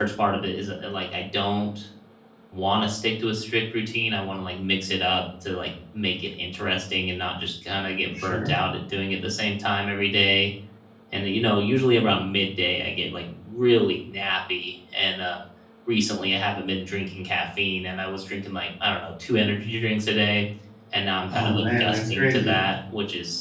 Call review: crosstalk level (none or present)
present